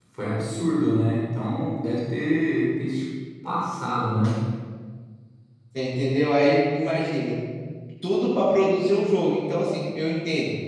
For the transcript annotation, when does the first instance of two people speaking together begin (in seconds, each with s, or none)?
none